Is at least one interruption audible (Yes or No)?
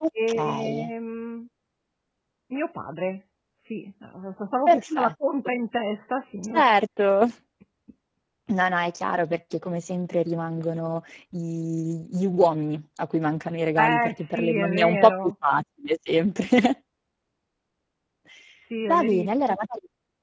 Yes